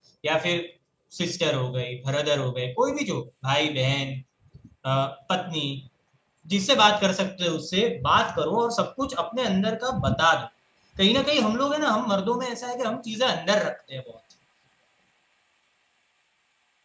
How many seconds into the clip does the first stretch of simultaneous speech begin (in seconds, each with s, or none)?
none